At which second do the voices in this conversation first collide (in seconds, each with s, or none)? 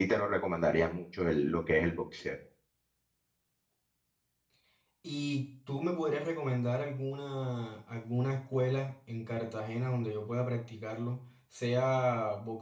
none